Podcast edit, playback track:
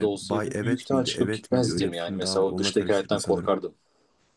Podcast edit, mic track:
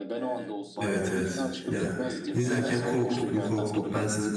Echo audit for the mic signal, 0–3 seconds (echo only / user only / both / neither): both